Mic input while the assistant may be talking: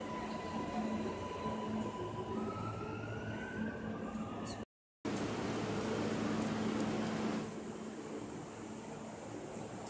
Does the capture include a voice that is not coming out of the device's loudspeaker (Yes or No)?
No